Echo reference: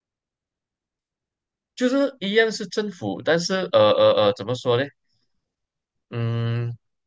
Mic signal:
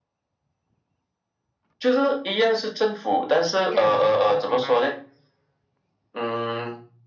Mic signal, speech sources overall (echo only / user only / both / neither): both